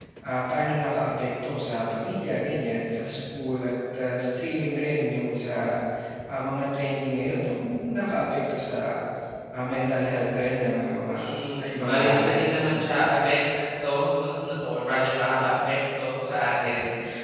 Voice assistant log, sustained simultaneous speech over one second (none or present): present